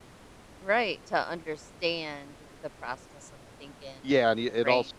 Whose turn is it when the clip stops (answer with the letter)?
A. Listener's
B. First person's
A